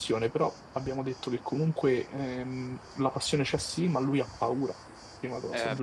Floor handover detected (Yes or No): Yes